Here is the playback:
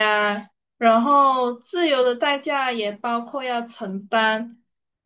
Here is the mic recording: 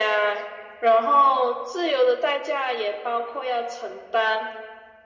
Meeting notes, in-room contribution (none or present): none